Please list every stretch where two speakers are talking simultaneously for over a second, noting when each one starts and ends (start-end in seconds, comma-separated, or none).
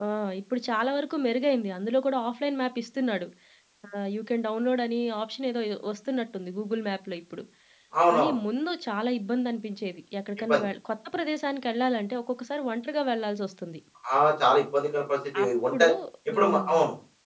none